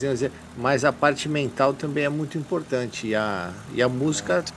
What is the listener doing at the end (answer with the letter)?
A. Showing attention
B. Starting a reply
A